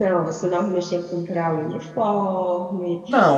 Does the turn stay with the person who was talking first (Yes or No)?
No